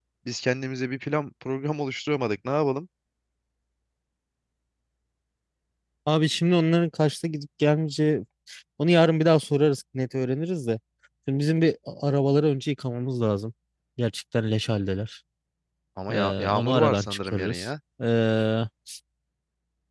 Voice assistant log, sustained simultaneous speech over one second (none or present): present